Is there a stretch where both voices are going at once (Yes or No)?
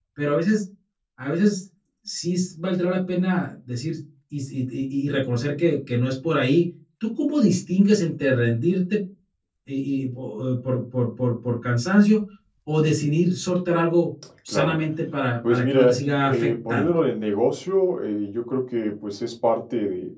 Yes